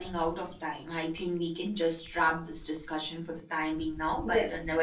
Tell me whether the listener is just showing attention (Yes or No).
Yes